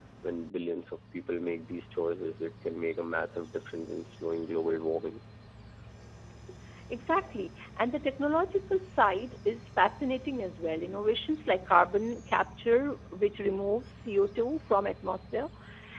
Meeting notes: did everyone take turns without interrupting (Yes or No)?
Yes